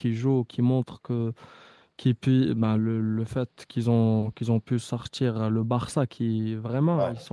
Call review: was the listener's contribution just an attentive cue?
Yes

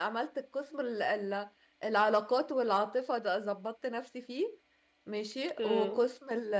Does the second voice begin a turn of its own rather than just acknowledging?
No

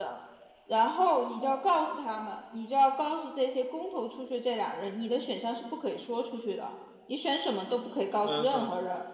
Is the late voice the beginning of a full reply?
No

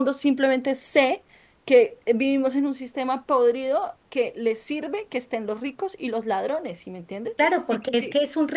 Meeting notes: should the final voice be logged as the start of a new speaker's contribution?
Yes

